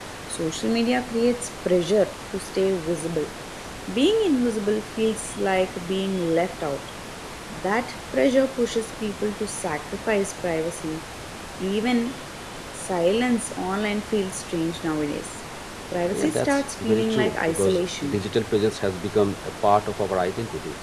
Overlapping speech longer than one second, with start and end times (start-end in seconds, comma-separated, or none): 16.1-18.2